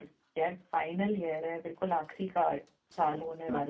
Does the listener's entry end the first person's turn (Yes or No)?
Yes